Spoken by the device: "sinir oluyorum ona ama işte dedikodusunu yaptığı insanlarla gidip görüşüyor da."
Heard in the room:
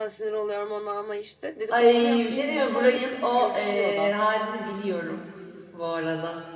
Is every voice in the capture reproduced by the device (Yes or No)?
No